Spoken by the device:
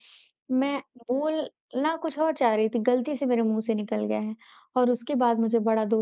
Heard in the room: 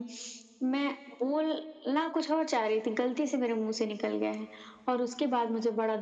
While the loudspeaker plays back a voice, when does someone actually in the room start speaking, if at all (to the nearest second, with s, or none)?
none